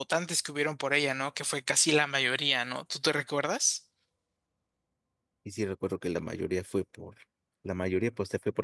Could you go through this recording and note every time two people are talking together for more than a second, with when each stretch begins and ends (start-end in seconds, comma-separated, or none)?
none